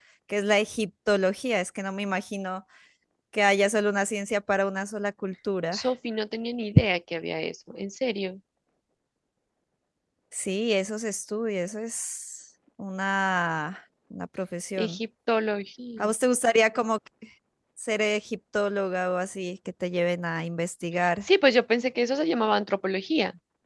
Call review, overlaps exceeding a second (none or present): none